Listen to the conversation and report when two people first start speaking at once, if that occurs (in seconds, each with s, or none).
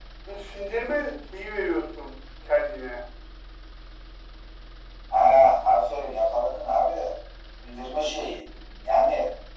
none